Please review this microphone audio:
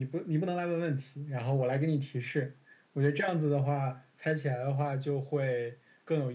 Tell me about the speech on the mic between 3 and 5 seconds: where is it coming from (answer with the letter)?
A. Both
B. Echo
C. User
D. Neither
B